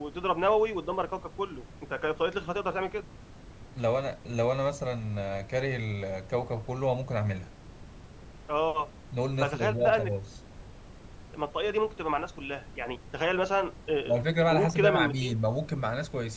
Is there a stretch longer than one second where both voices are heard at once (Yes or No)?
Yes